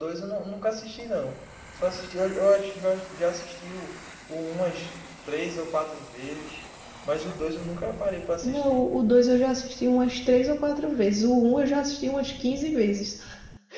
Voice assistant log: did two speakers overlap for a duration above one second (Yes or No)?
No